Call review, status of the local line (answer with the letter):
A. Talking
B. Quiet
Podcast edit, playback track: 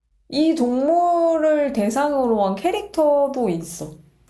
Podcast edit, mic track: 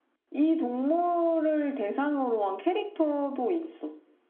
B